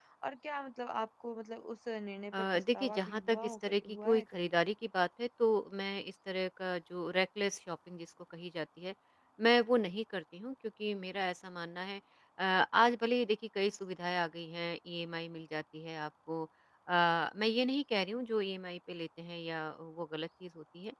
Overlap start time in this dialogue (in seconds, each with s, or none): 2.3 s